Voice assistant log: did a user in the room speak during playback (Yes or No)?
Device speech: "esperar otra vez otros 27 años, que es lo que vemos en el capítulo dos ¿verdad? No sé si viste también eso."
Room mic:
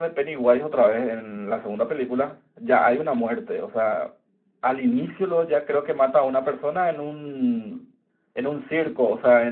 Yes